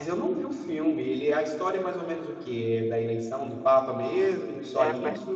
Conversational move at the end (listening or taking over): taking over